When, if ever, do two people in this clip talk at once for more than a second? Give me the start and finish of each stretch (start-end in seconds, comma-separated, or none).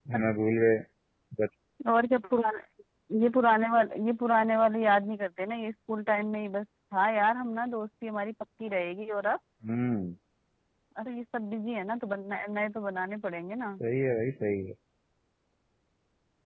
none